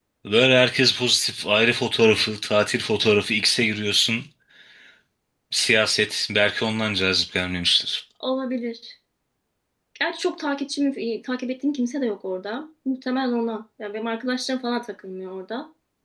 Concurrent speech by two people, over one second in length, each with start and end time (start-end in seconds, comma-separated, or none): none